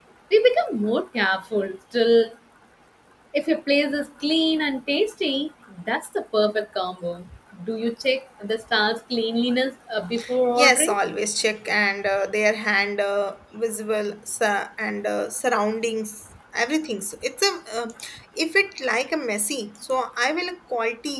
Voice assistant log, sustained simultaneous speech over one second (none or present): none